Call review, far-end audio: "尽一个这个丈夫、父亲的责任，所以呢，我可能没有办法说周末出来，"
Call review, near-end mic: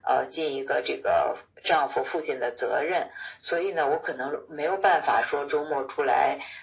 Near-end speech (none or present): none